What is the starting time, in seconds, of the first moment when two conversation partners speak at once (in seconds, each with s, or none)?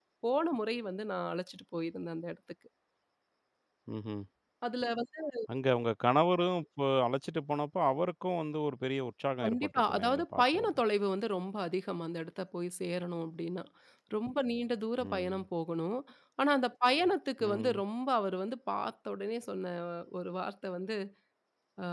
9.4 s